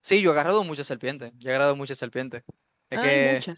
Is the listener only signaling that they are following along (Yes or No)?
Yes